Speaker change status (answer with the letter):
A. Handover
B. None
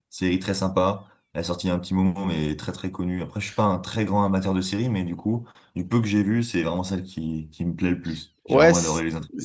A